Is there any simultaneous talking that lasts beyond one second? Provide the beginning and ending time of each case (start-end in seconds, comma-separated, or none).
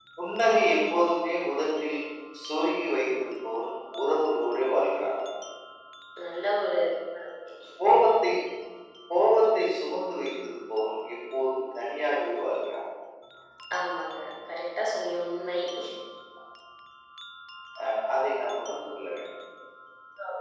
none